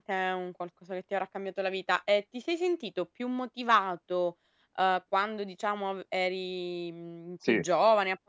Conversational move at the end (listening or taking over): listening